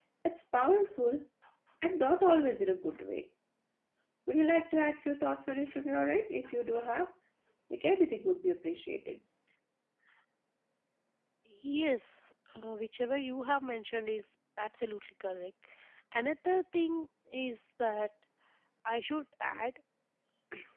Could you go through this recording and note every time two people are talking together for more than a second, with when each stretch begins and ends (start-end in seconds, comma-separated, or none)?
none